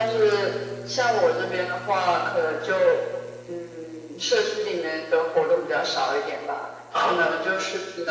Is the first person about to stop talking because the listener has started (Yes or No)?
No